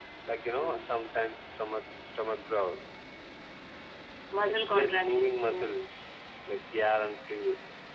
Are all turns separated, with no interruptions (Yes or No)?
No